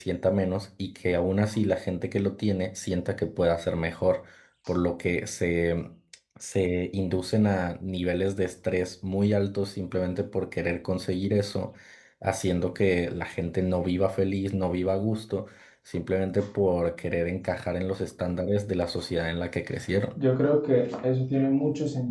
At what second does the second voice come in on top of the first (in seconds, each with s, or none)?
none